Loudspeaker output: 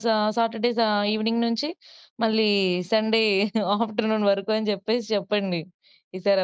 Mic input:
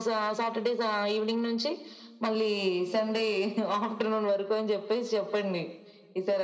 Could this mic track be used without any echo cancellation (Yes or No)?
No